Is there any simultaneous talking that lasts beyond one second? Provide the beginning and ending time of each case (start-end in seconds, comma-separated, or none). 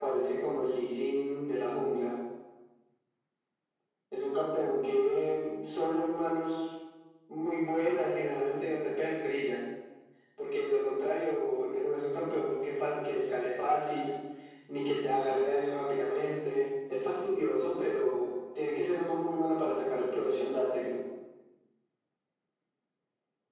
none